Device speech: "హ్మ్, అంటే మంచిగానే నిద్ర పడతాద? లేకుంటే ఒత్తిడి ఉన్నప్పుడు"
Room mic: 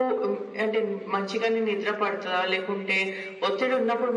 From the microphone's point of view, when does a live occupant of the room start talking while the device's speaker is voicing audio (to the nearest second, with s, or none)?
none